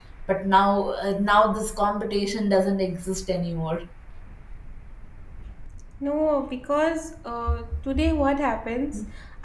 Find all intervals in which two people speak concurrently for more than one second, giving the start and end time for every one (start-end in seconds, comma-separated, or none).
none